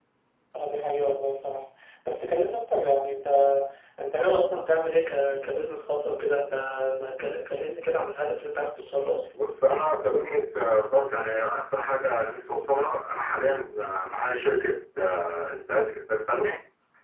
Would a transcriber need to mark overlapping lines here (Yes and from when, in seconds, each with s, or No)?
No